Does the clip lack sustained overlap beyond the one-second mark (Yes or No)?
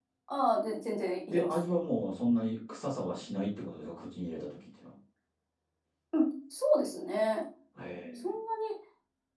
Yes